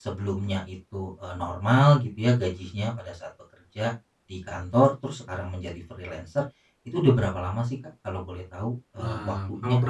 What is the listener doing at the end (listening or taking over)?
taking over